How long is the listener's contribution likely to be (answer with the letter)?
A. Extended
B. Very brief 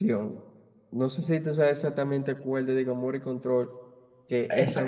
A